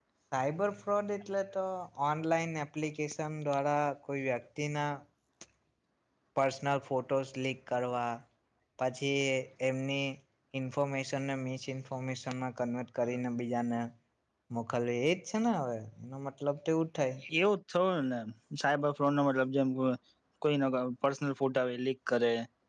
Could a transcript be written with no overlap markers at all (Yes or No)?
Yes